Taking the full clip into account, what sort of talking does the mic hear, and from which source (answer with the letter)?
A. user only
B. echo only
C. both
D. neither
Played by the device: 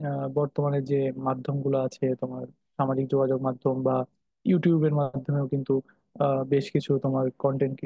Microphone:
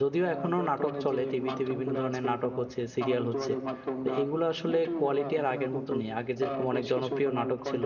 C